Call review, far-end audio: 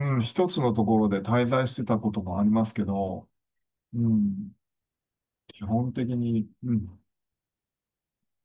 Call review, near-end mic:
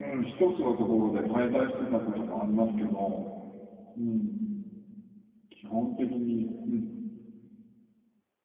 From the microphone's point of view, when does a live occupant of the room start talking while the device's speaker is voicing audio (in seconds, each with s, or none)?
none